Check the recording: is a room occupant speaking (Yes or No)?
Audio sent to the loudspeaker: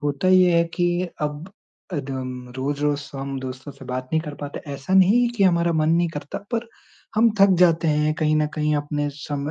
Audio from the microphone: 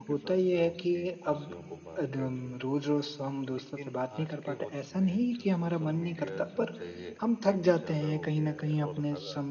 Yes